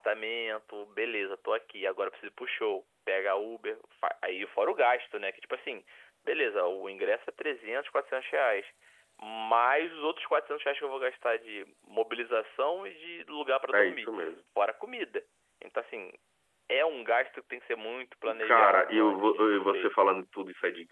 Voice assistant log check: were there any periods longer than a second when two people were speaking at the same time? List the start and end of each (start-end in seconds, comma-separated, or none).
18.2-19.9